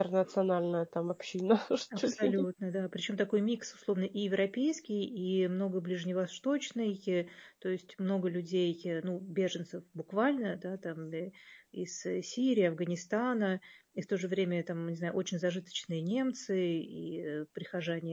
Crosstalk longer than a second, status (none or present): none